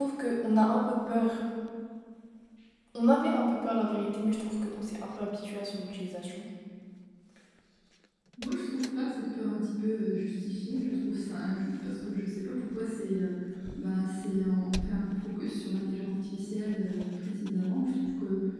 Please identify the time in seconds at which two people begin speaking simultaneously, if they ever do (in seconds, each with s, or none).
none